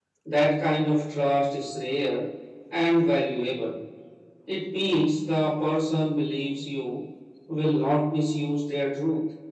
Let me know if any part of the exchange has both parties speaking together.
No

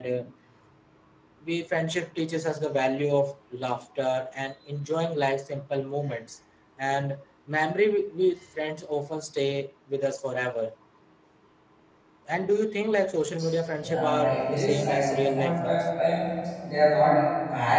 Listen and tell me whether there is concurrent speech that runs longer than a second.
Yes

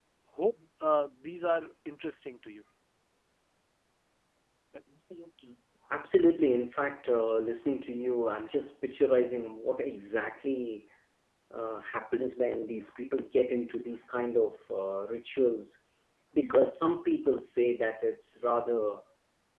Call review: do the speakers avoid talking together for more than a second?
Yes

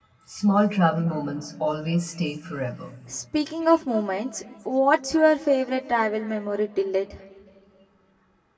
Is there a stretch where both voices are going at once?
No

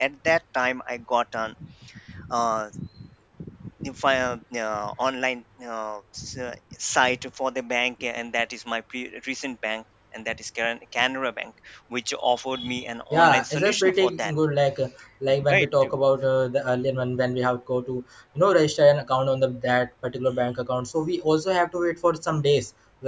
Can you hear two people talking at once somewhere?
Yes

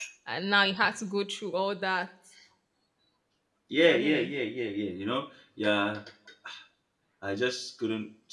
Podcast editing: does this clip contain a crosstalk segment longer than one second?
No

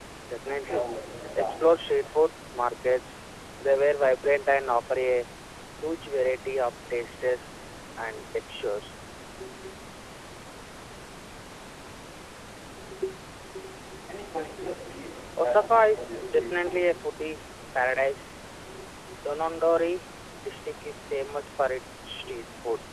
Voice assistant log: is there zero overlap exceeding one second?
No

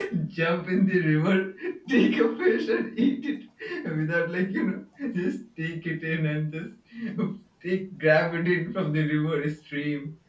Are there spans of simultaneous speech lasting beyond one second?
No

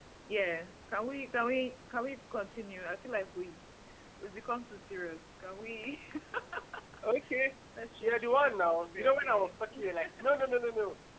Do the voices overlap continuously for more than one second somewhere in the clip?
Yes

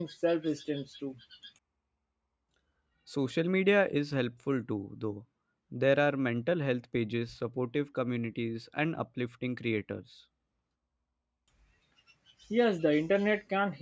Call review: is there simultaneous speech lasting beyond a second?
No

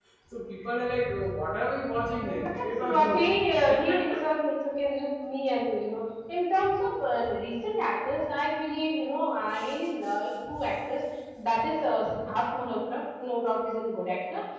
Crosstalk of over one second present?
Yes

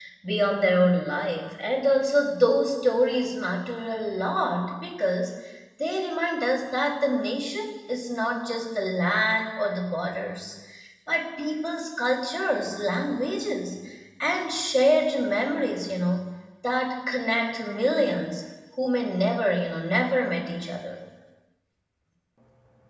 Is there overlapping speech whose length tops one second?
No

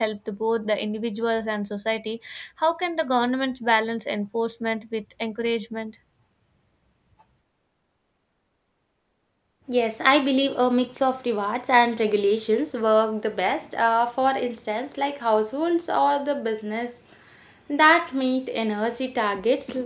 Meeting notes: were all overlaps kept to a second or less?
Yes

